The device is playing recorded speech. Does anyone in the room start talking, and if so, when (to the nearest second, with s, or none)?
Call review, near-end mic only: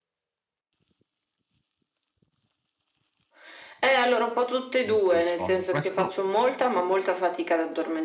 5 s